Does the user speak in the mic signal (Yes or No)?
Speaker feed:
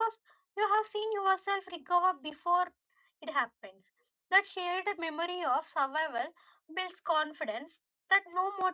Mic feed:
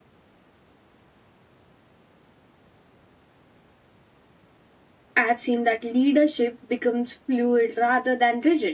Yes